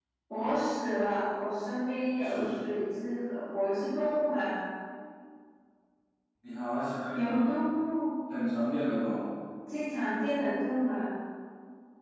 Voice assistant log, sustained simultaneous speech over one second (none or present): none